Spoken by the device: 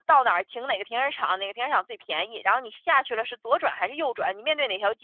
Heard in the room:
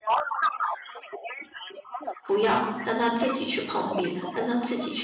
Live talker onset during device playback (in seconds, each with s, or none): 2.2 s